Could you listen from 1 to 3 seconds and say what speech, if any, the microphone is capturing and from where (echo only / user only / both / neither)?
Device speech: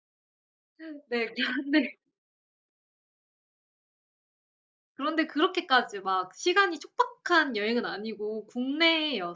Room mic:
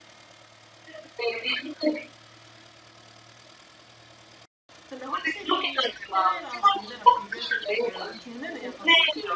echo only